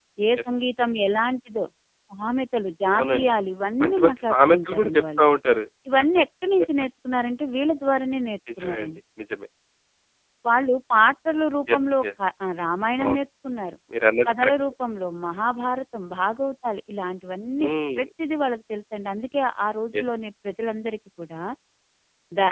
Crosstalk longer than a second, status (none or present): present